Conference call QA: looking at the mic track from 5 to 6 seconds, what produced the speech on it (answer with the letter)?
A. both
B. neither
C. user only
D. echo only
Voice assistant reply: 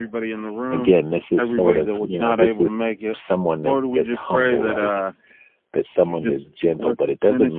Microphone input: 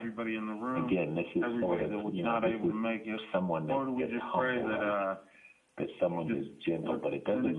D